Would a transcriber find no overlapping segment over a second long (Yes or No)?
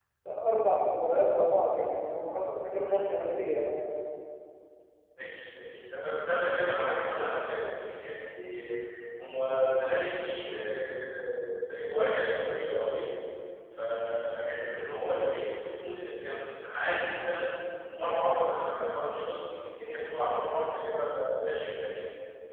Yes